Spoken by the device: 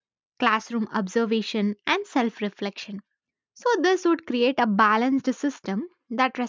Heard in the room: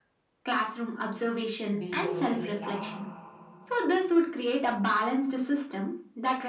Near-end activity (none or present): present